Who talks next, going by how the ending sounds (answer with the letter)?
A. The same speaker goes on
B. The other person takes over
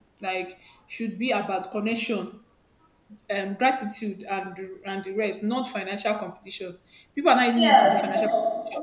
B